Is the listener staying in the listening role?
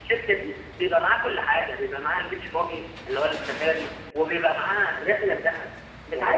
Yes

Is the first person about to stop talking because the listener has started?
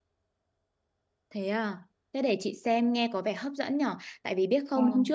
No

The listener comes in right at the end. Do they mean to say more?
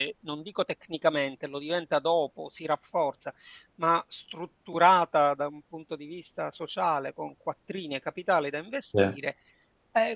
No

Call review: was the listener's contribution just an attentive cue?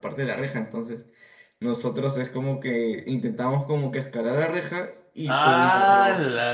No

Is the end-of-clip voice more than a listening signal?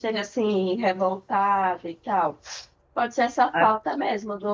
No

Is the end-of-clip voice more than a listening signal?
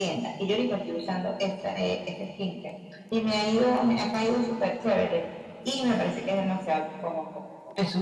No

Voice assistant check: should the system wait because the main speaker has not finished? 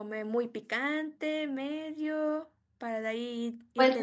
No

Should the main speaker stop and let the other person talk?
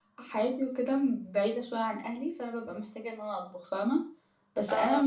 No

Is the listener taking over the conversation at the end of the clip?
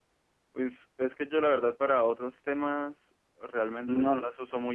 No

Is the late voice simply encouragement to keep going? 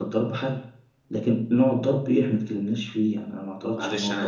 No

